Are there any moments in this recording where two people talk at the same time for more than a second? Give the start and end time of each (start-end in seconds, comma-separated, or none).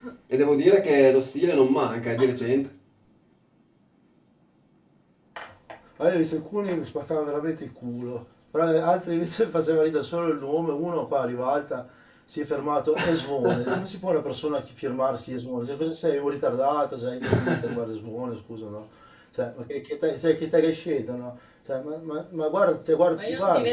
none